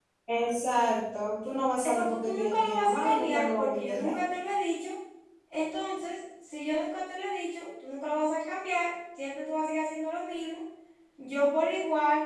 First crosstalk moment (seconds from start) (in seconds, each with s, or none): 1.8 s